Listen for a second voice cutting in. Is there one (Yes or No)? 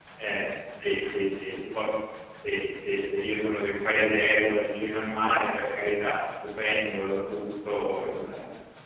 No